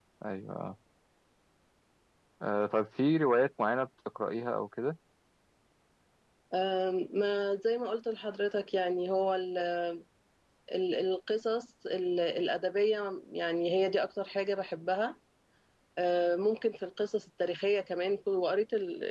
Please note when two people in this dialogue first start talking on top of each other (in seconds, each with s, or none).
none